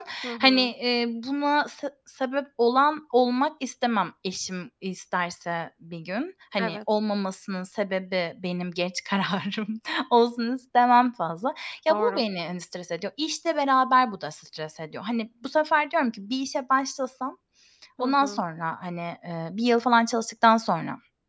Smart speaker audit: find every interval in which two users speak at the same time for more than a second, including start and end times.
none

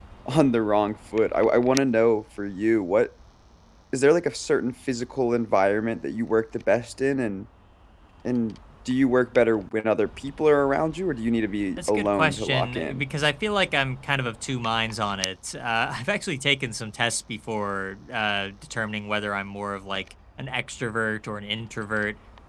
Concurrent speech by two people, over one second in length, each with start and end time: 11.8-13.0

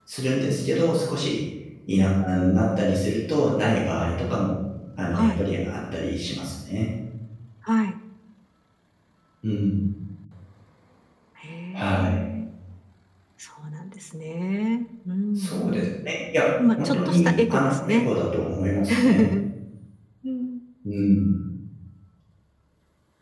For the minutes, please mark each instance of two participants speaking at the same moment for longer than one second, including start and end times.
16.6-18.1

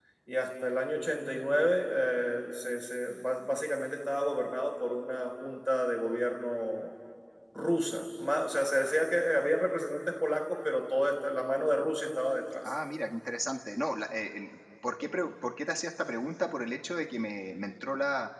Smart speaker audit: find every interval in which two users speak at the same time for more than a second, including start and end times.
none

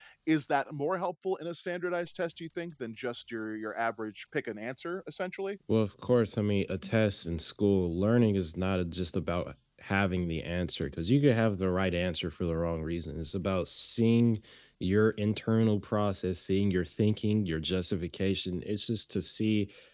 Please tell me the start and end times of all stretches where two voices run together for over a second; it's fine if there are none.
none

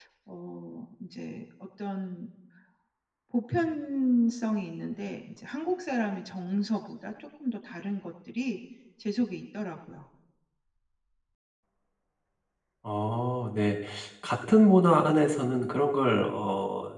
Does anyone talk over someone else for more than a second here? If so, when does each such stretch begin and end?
none

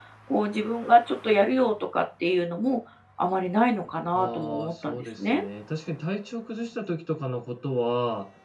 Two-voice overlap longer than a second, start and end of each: 4.1-5.4

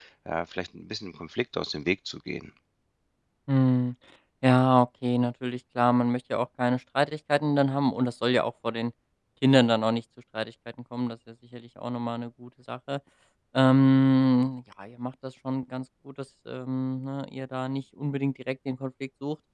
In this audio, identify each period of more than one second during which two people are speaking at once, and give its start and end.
none

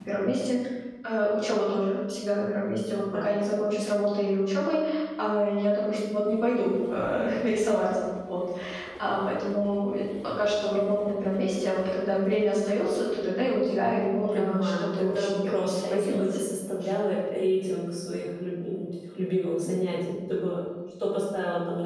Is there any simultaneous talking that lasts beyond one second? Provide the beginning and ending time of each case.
14.3-16.4

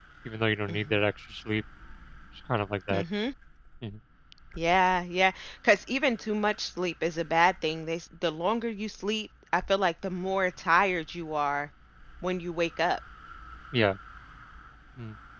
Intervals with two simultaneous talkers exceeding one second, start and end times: none

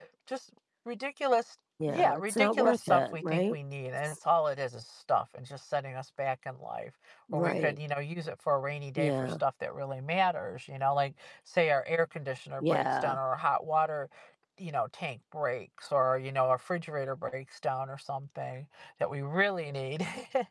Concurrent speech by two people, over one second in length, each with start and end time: 1.9-3.5

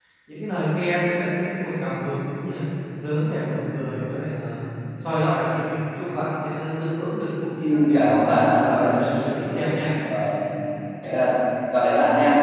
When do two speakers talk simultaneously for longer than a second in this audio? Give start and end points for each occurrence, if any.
7.6-9.7

